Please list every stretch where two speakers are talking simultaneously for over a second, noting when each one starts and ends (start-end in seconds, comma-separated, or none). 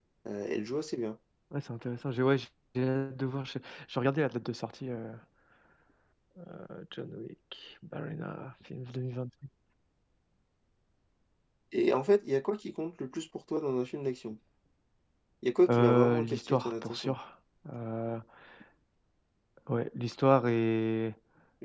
15.7-17.1